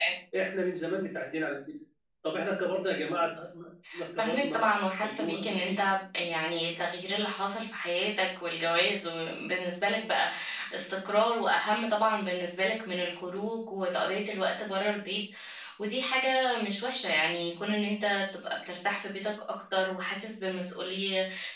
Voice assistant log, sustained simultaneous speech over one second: present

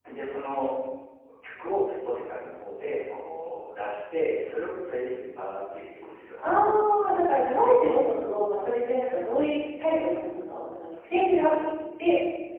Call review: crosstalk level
none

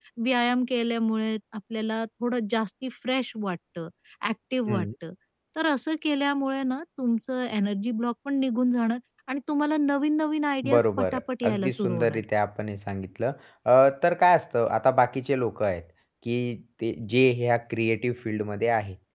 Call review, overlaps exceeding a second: present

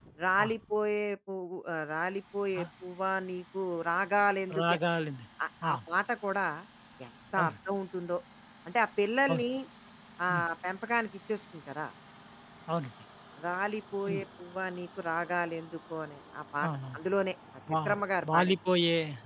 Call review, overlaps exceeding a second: none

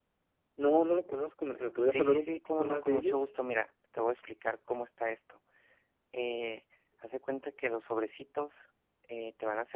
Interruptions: present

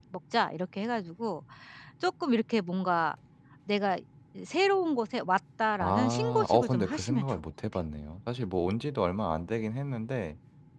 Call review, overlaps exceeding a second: present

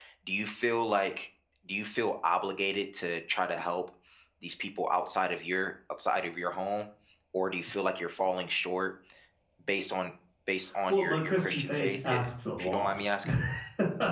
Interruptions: present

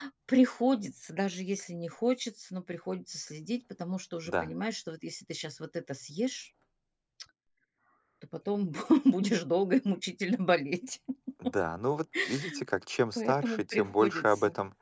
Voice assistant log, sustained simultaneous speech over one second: present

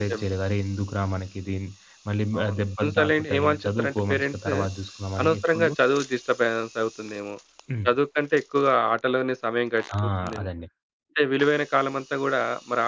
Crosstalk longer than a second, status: present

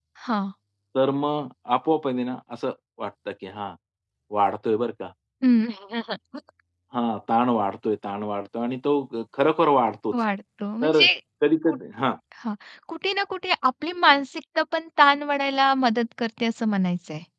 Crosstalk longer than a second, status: none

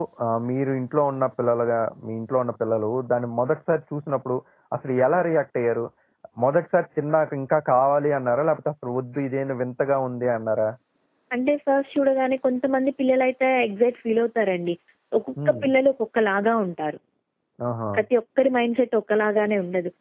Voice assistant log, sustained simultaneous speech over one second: none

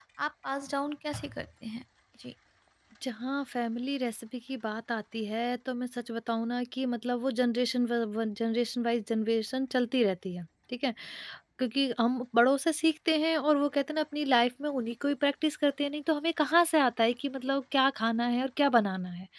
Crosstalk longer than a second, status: none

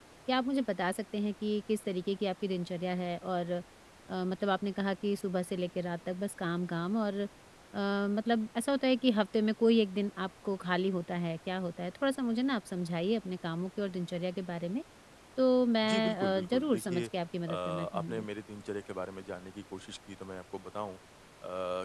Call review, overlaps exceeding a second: present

